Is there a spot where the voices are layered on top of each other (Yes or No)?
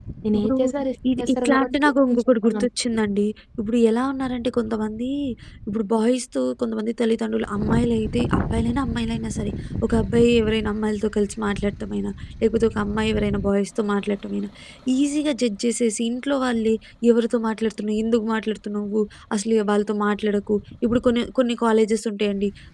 Yes